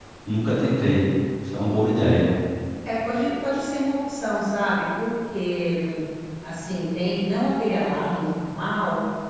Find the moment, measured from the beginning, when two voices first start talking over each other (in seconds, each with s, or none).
none